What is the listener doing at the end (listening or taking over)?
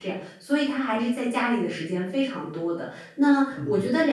listening